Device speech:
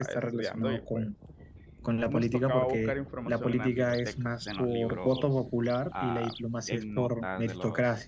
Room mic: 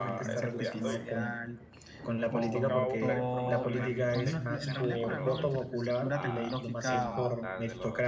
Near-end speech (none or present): present